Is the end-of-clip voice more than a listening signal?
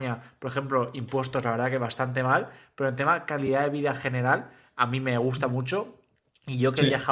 No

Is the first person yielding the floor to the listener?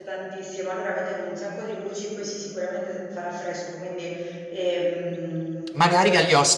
Yes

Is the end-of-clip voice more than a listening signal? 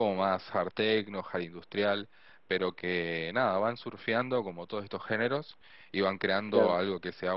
No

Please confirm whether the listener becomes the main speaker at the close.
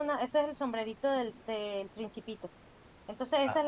No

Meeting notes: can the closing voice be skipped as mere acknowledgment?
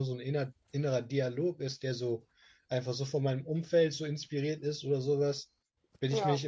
Yes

